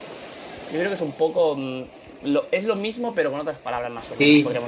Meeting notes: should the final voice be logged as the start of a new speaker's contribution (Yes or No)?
Yes